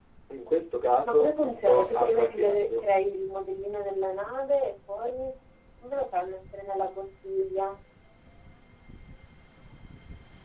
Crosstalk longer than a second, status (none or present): present